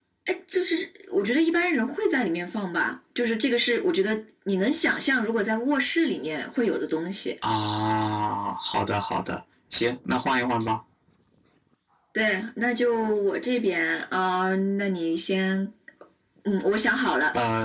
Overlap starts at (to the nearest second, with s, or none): none